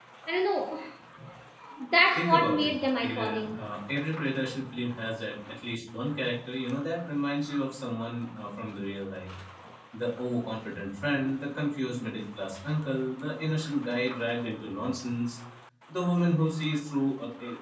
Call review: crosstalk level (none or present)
present